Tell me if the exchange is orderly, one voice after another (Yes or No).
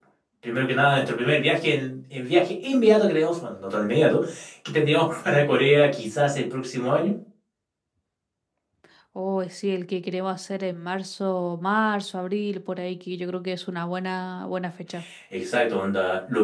Yes